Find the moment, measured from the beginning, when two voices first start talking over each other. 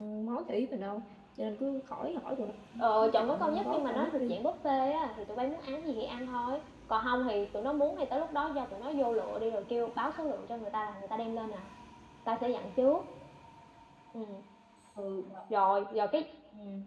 3 s

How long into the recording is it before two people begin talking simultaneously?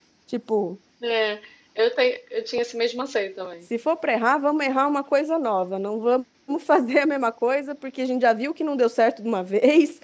none

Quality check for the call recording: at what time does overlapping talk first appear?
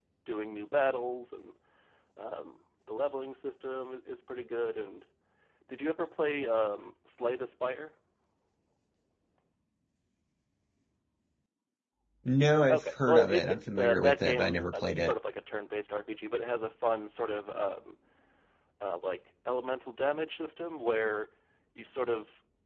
13 s

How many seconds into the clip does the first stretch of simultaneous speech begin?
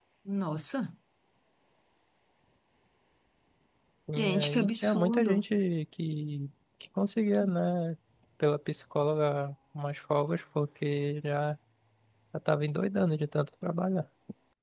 4 s

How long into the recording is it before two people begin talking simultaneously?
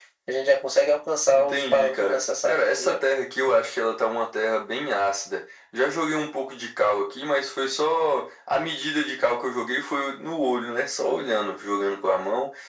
1 s

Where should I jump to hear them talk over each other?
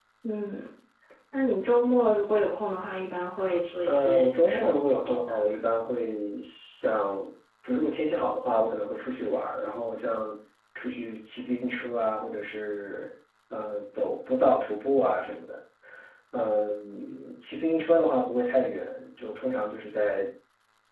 4 s

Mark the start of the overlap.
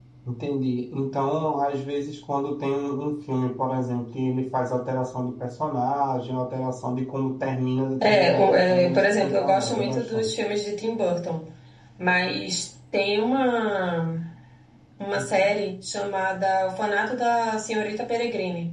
8 s

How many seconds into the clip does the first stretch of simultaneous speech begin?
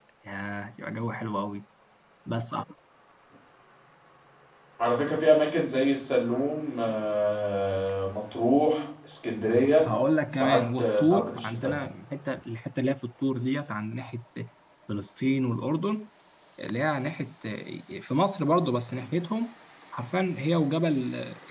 10 s

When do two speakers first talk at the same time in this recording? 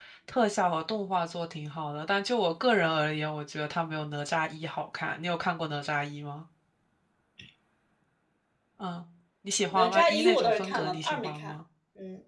10 s

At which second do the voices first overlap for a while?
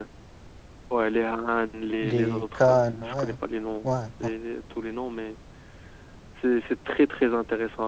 2 s

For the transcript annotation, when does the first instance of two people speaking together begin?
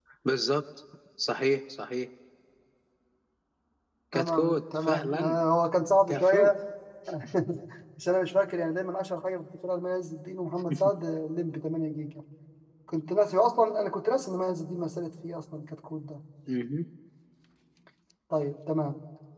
4 s

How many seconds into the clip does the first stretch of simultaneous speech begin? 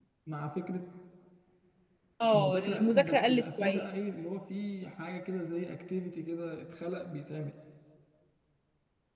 2 s

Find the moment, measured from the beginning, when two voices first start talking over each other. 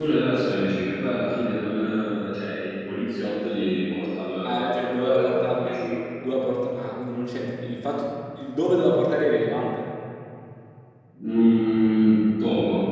4 s

